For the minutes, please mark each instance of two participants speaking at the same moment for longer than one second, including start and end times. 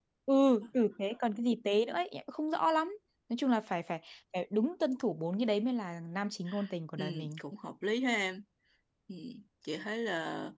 none

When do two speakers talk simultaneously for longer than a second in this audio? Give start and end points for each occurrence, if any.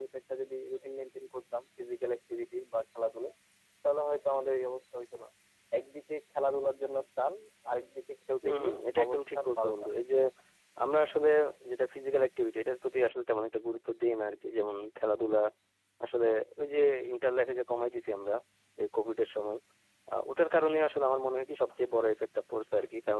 8.4-9.7

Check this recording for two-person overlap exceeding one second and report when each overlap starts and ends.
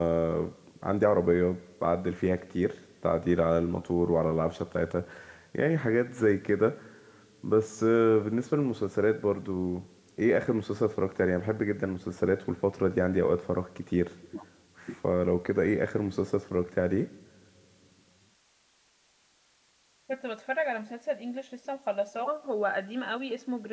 none

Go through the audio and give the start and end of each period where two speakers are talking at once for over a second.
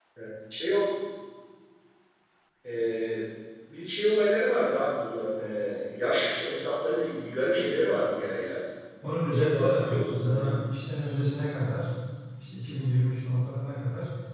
9.3-10.6

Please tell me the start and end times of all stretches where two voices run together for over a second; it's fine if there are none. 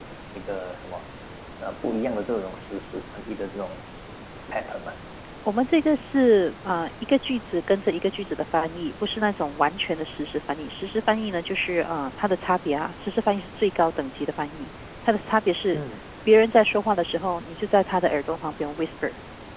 none

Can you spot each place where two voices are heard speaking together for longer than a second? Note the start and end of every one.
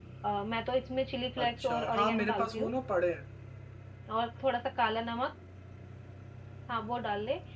1.4-2.7

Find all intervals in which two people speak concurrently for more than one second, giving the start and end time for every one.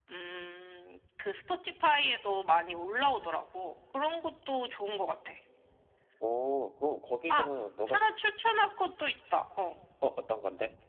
none

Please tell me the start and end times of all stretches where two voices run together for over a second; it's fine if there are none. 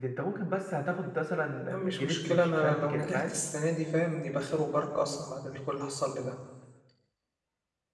1.7-3.3

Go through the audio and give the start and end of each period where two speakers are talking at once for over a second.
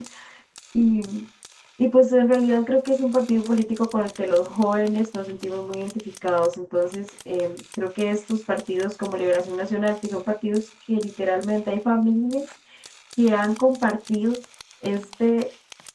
none

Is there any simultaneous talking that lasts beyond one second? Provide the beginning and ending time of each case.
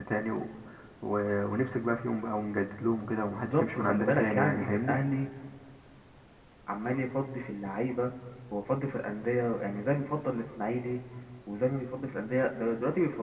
3.5-5.0

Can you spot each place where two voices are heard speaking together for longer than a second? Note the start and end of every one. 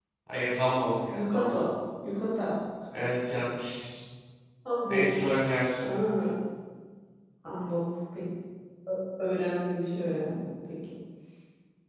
none

